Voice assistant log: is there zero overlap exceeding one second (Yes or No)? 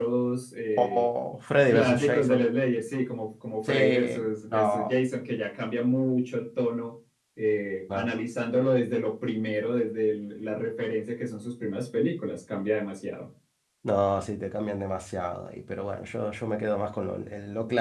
No